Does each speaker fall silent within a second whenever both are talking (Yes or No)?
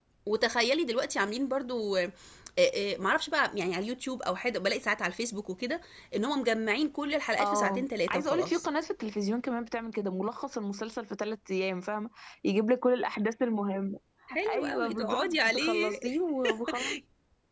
No